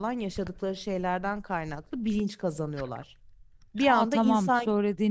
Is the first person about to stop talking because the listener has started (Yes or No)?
Yes